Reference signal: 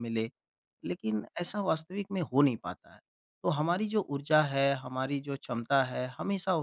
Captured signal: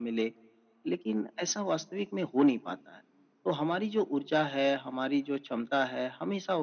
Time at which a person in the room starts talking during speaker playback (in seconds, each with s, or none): none